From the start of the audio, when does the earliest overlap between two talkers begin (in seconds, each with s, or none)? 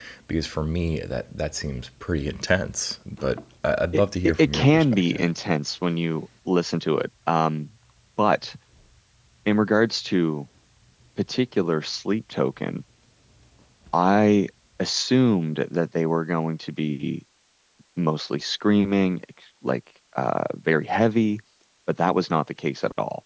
3.9 s